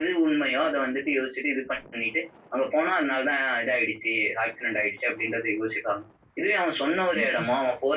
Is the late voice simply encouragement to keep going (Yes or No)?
Yes